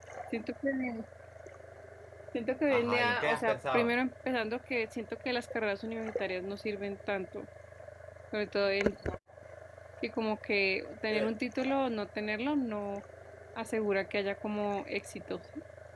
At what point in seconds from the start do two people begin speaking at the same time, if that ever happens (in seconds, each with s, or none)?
2.7 s